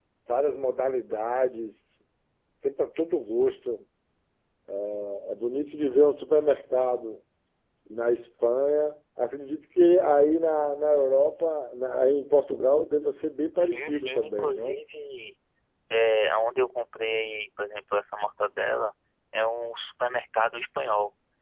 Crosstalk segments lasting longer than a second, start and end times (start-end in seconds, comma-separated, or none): 13.6-14.8